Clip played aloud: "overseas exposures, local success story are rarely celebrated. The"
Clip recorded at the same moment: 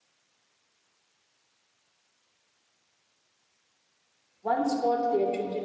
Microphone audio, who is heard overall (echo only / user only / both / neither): user only